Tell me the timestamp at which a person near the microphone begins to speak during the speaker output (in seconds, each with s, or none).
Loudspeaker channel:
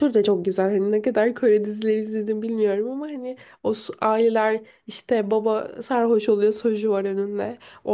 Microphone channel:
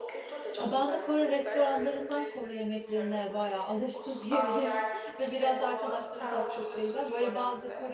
0.6 s